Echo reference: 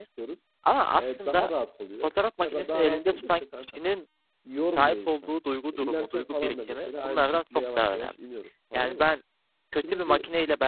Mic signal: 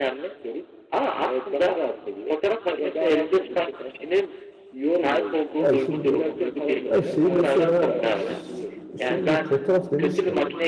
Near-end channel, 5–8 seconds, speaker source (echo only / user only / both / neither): both